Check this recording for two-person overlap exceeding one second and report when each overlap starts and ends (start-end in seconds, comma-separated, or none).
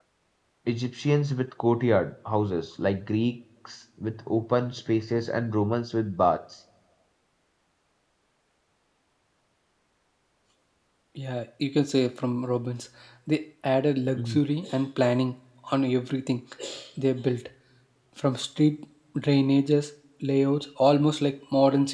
none